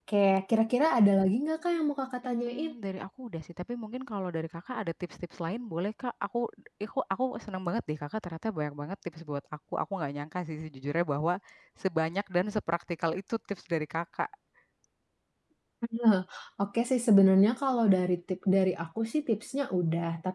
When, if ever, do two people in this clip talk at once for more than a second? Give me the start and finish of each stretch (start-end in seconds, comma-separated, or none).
none